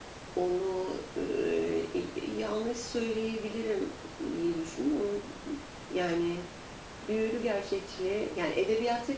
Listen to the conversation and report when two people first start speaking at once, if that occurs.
none

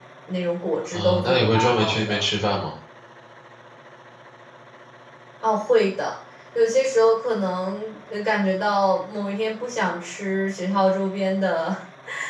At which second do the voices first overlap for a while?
0.9 s

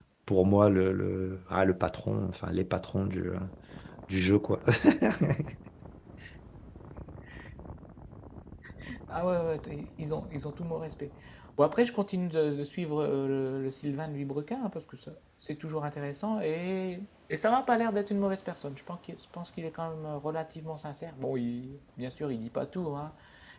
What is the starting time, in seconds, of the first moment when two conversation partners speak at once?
none

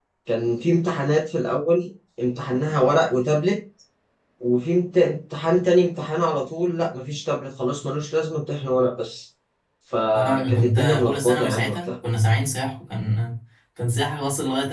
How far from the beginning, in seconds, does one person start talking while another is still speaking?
10.1 s

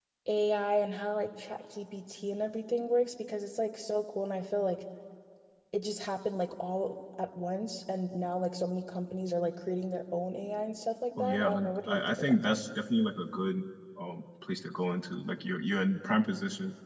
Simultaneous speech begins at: 11.2 s

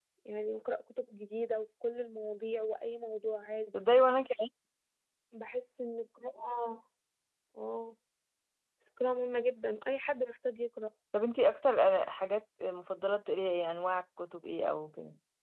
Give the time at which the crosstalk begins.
none

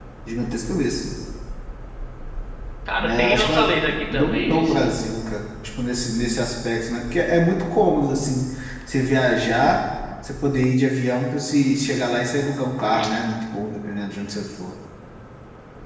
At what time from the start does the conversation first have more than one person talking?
3.0 s

